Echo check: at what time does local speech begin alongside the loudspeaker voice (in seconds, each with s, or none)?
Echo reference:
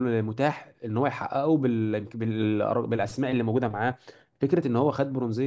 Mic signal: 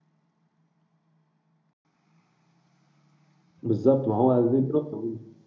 3.6 s